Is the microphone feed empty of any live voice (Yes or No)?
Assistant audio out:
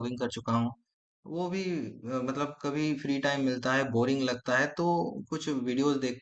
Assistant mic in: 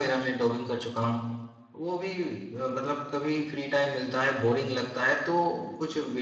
Yes